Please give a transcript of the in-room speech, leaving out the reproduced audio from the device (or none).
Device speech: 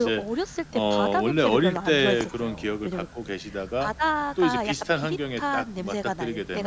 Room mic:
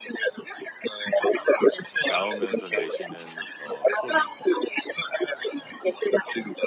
나오면서 내시는 어 소리